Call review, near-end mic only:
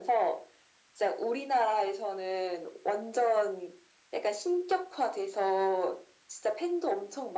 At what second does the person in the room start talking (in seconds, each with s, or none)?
none